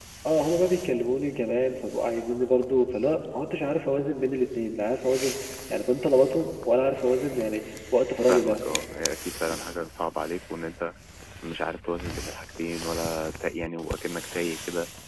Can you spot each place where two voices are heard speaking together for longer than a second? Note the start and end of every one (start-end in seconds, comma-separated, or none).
none